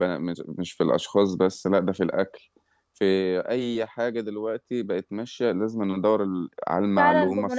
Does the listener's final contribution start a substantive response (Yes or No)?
Yes